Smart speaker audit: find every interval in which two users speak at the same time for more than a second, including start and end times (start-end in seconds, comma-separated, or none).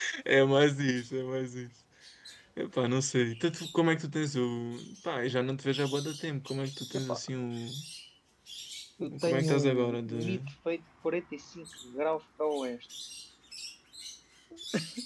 9.1-10.4